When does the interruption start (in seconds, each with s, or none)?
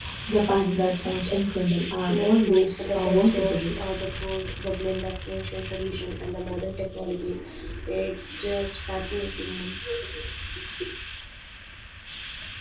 2.1 s